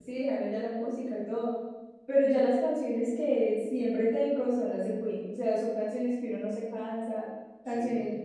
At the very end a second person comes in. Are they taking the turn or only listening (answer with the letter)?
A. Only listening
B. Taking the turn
A